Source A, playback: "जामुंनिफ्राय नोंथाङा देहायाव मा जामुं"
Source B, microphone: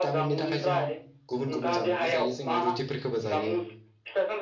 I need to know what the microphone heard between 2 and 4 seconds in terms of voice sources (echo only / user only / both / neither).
both